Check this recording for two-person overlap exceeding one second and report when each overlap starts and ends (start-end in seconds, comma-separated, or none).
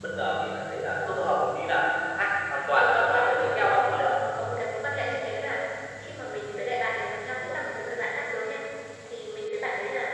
2.7-4.2